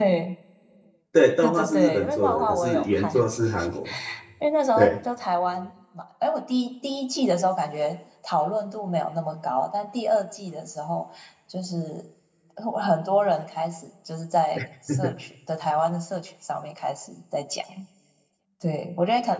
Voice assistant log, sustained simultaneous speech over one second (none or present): present